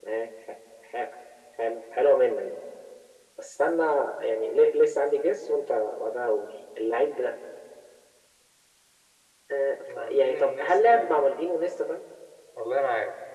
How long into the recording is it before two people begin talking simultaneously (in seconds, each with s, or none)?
10.0 s